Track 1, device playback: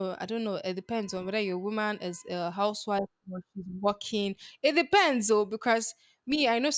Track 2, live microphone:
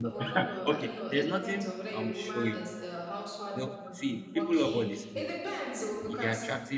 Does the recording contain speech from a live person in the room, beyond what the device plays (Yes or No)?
Yes